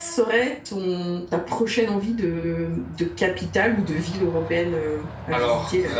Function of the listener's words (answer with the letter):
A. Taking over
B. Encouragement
A